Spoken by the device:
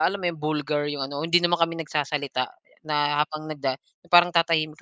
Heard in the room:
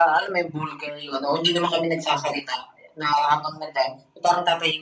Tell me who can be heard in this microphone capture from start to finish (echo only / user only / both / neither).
echo only